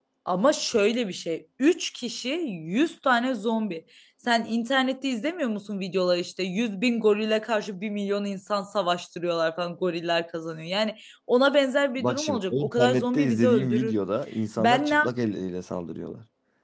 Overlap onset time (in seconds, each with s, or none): 12.0 s